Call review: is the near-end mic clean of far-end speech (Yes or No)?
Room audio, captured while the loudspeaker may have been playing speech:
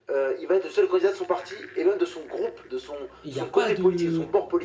No